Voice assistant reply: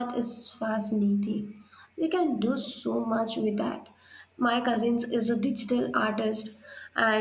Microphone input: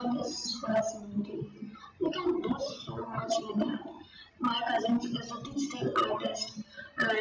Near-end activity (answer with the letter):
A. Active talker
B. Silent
B